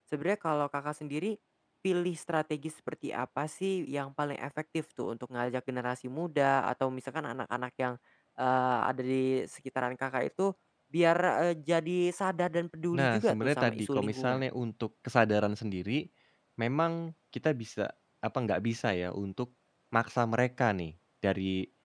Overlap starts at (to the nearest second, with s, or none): 13 s